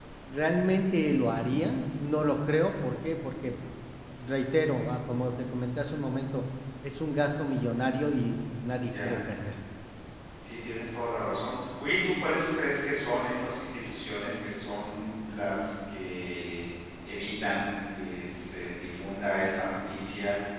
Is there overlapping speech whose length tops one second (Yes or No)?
No